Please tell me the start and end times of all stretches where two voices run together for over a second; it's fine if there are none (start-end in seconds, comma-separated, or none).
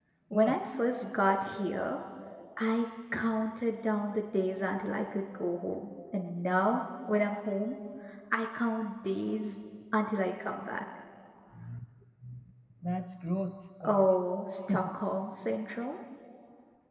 none